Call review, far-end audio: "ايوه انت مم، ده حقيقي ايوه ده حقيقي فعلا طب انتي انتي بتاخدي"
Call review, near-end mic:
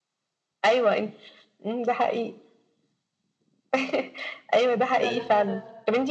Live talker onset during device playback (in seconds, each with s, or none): 5.0 s